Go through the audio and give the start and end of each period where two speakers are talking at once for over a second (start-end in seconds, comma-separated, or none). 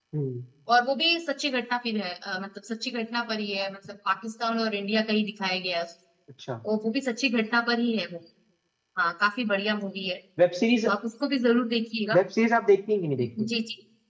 none